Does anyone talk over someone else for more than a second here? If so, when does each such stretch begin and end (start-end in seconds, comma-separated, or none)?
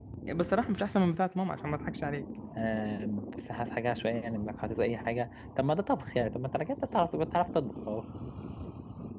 none